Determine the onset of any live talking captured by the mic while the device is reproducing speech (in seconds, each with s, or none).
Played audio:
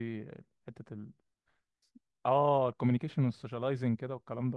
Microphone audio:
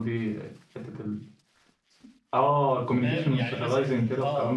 3.0 s